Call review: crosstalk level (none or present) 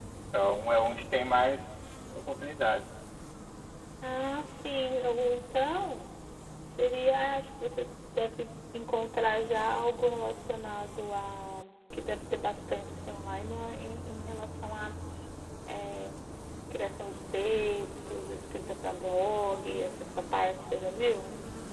none